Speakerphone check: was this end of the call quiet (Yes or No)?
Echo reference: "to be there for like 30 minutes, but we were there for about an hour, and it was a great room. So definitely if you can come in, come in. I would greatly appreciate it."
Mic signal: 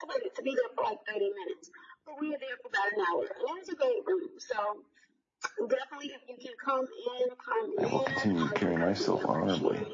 No